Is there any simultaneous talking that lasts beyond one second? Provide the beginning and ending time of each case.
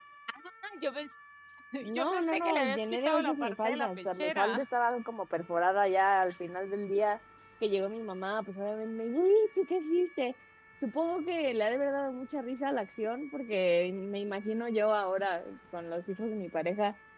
1.9-4.6

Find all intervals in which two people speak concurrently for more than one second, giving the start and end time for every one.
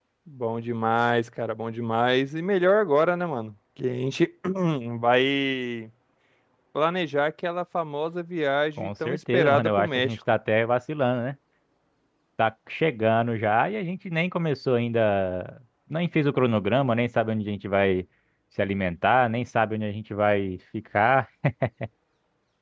8.8-10.2

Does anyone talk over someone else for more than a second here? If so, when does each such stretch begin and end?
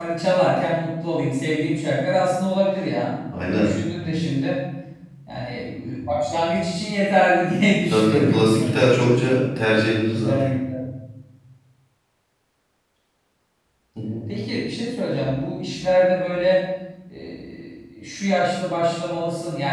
7.9-9.4

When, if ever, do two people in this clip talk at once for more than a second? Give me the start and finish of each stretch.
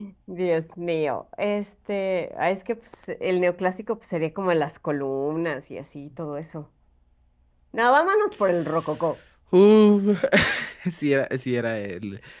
none

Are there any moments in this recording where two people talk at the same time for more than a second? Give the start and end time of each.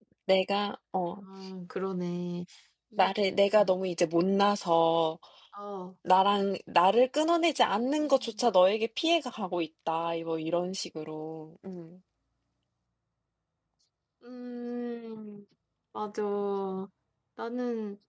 none

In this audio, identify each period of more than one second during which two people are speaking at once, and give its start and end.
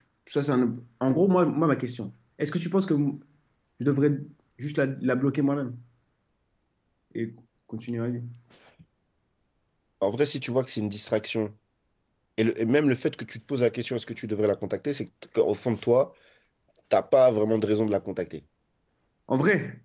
none

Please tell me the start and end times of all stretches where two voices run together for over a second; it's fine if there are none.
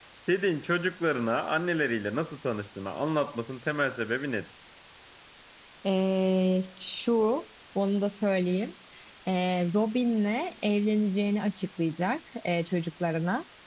none

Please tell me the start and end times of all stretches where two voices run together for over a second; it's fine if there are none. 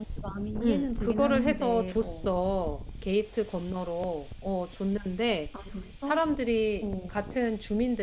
0.6-2.4

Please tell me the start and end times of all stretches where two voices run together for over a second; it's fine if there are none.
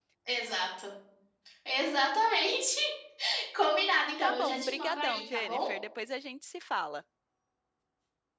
4.2-5.6

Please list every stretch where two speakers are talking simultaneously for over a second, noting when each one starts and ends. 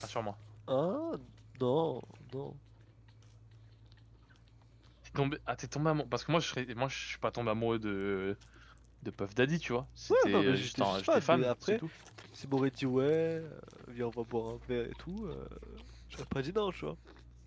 10.1-11.8

